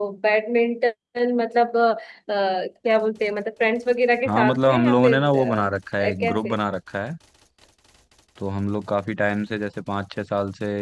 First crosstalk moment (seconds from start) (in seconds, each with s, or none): 4.2 s